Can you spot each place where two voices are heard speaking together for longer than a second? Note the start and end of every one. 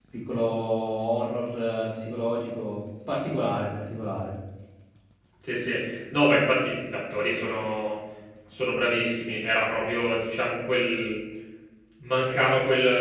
none

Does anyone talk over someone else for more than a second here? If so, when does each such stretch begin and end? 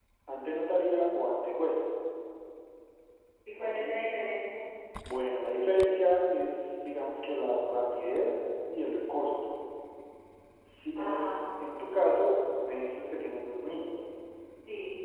none

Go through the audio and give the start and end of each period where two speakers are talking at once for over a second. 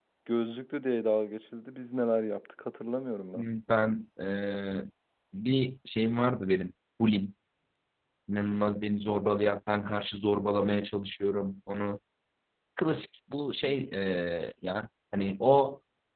none

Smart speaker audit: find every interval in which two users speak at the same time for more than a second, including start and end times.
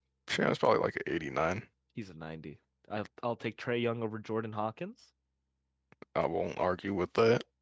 none

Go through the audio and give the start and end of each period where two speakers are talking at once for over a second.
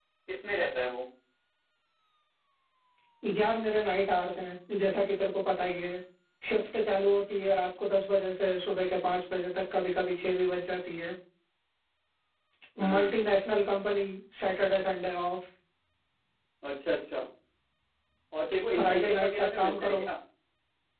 18.7-20.0

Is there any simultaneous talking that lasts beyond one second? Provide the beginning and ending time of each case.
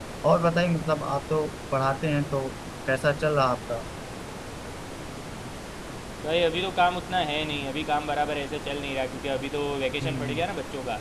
none

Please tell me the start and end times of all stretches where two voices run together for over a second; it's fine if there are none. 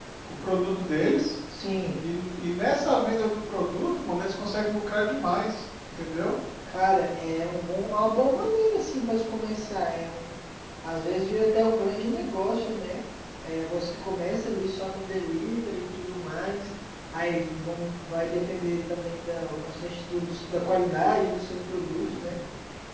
none

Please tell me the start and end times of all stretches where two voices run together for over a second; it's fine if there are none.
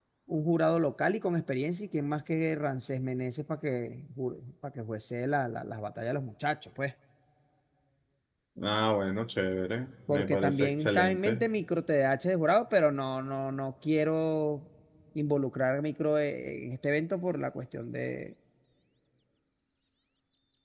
10.1-11.4

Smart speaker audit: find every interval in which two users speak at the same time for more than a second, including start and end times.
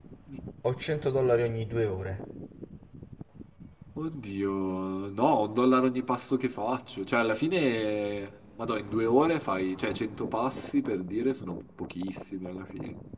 none

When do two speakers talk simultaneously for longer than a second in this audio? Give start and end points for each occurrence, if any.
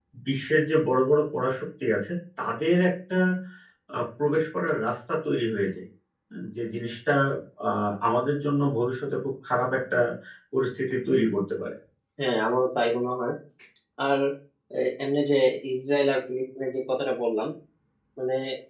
none

